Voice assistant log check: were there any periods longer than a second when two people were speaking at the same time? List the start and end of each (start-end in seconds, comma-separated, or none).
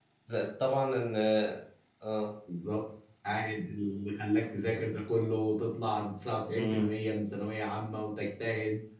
none